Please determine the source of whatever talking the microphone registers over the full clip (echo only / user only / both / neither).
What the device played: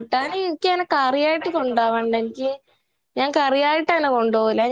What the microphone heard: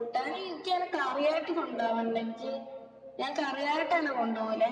echo only